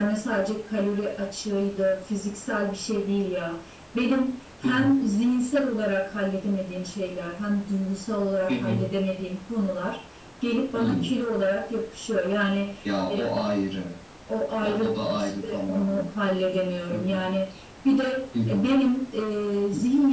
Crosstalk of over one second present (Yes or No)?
Yes